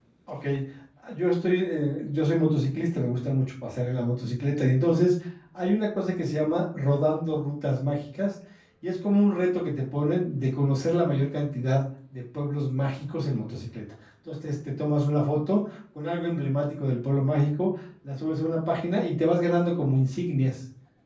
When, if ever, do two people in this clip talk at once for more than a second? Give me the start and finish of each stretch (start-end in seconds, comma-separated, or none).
none